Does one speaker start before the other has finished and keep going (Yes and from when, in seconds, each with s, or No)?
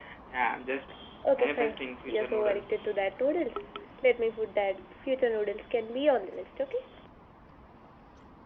Yes, from 1.4 s